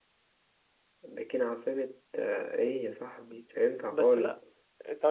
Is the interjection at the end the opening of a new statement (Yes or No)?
Yes